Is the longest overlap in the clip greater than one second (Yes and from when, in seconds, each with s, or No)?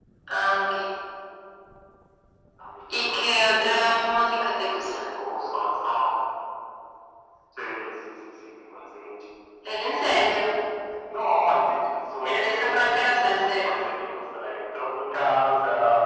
Yes, from 2.9 s